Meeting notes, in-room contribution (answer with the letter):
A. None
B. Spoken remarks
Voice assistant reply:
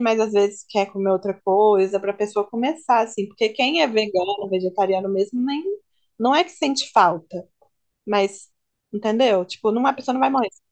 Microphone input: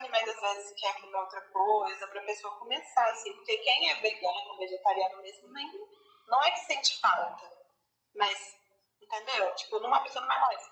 A